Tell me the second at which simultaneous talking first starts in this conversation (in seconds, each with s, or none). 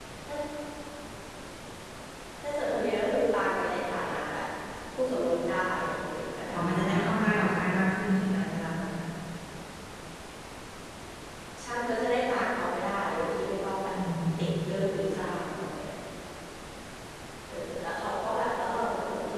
6.5 s